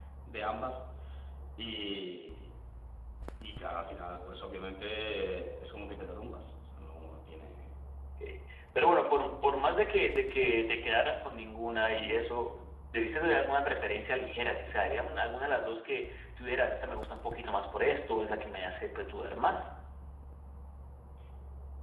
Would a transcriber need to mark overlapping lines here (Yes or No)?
No